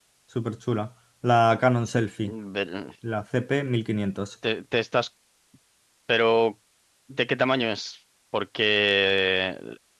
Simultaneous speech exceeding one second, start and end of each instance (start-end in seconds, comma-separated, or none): none